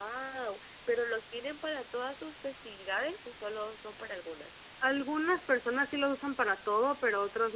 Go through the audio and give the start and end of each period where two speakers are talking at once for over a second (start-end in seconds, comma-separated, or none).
none